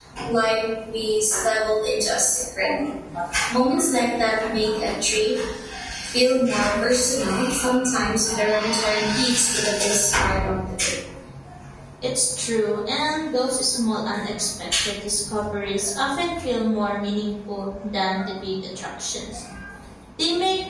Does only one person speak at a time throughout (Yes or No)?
Yes